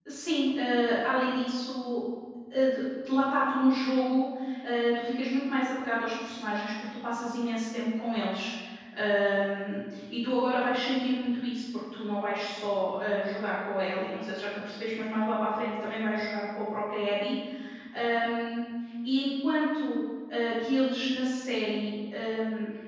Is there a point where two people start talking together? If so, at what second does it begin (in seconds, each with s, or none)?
none